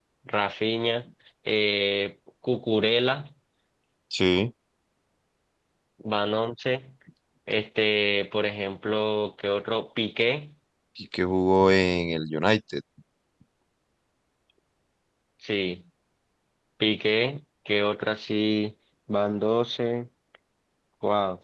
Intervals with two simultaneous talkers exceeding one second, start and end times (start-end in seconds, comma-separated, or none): none